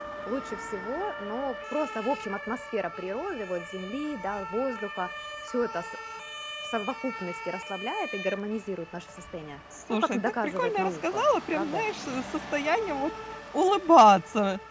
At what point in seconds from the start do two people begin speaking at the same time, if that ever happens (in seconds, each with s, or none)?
9.7 s